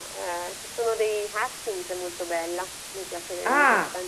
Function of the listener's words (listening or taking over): listening